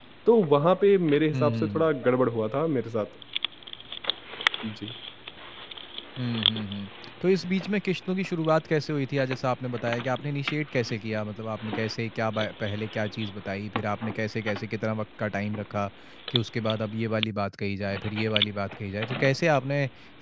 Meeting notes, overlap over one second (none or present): none